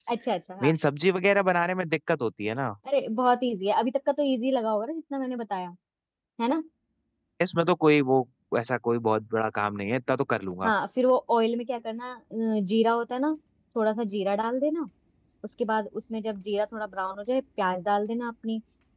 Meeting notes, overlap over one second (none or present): none